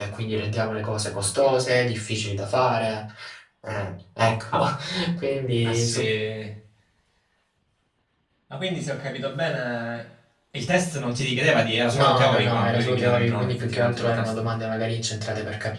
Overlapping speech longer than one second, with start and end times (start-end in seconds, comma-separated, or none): 12.0-14.4